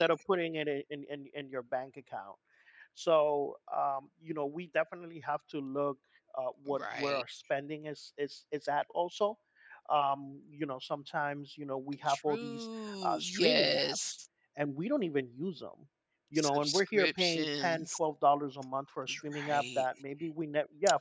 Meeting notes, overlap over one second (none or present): present